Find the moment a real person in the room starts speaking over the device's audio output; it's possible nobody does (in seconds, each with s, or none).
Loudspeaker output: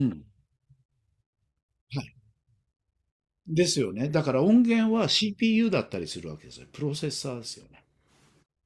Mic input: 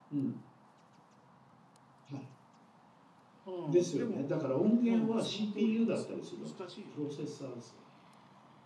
3.4 s